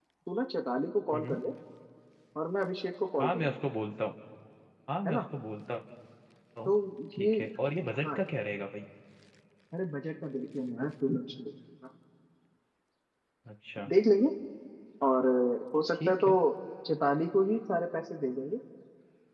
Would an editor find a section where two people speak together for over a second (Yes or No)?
No